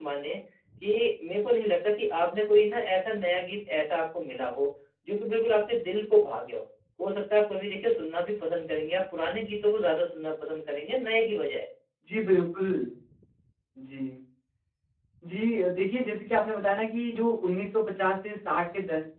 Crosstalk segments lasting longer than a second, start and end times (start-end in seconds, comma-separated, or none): none